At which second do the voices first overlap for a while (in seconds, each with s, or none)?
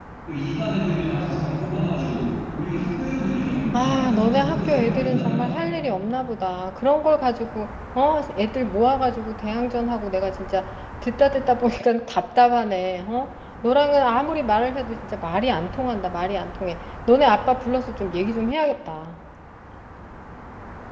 3.7 s